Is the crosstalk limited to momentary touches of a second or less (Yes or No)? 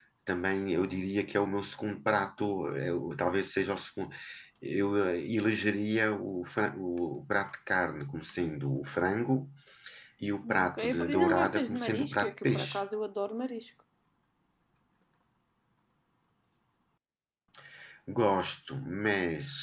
No